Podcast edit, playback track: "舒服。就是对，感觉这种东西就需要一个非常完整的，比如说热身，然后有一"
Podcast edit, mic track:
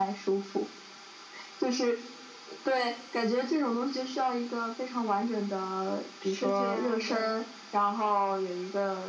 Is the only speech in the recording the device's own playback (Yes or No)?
No